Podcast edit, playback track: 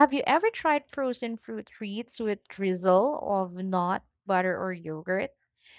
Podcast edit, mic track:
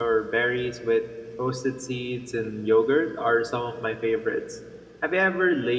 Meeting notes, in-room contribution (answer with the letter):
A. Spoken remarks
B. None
A